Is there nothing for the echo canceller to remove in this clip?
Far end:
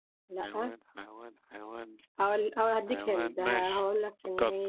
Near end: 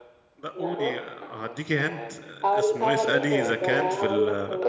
No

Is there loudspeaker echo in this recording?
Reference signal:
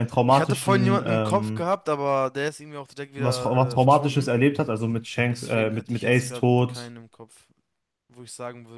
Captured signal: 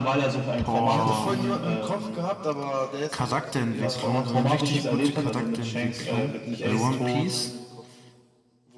Yes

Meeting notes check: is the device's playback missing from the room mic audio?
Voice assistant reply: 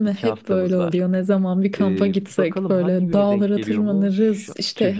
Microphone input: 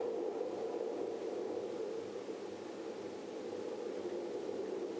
Yes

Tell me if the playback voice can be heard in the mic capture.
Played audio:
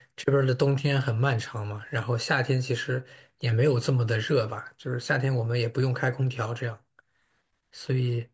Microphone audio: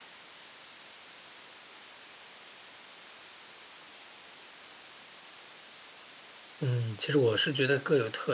No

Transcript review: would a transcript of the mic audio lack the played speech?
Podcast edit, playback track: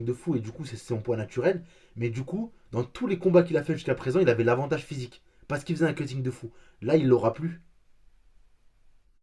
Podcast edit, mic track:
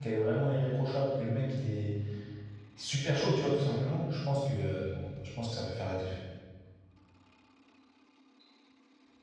Yes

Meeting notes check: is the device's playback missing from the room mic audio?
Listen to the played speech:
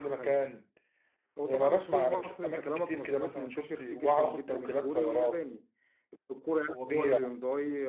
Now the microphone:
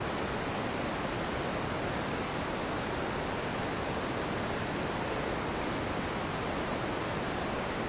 Yes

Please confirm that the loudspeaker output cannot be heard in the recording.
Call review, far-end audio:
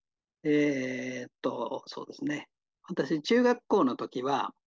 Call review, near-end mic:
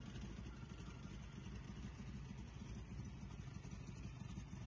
Yes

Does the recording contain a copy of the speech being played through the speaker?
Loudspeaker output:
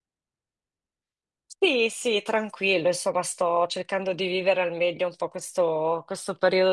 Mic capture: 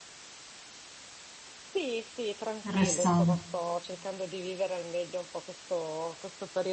Yes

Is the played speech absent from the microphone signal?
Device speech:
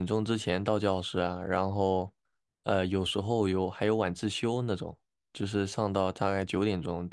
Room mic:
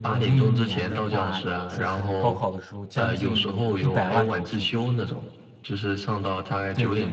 No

